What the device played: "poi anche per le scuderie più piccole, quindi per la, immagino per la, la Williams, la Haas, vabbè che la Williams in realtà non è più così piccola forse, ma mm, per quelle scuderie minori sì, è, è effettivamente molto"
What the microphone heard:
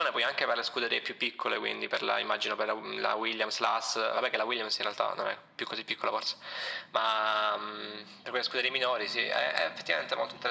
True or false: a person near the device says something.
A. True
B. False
B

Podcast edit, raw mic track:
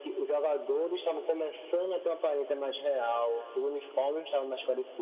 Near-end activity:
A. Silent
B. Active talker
A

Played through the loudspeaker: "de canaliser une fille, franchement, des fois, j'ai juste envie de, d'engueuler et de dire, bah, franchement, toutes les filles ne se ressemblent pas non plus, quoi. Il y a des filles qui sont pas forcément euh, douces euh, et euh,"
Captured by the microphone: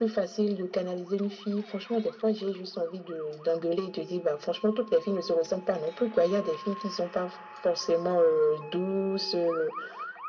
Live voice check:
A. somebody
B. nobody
B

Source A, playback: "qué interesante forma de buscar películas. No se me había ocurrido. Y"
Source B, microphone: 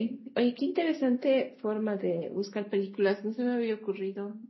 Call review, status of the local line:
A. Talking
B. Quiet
B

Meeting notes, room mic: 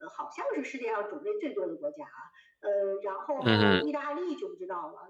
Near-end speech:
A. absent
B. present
B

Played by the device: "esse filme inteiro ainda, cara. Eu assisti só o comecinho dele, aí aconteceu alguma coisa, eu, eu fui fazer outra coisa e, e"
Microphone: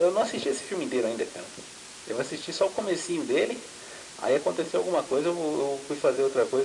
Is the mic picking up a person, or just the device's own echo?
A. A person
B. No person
B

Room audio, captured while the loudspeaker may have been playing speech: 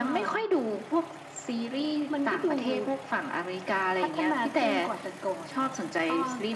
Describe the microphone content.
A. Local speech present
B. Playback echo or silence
B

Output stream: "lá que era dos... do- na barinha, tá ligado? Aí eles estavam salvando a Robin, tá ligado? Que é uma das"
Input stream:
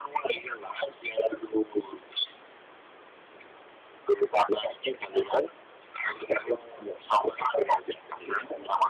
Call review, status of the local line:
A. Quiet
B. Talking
A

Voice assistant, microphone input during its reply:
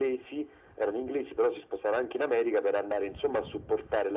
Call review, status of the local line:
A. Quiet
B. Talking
A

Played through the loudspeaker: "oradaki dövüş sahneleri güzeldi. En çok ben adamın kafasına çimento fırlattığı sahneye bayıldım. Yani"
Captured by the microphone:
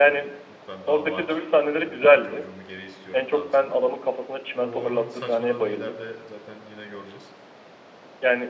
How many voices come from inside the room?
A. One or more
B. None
A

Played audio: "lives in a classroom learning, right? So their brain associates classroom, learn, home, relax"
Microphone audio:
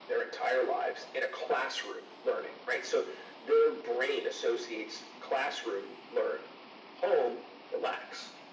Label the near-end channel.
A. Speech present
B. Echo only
B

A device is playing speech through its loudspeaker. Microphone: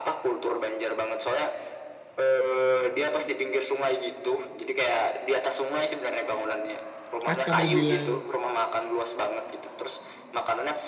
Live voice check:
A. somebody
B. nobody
A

